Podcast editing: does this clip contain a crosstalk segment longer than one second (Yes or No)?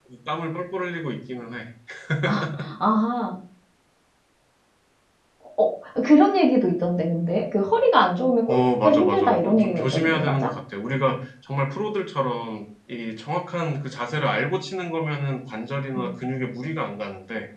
Yes